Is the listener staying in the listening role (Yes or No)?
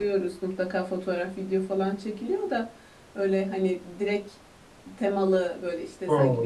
Yes